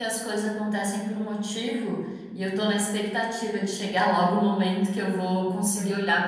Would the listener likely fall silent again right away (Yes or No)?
Yes